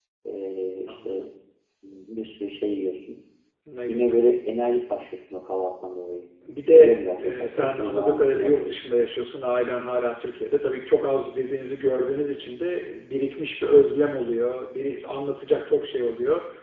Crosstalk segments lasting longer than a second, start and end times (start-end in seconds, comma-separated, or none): 6.7-8.7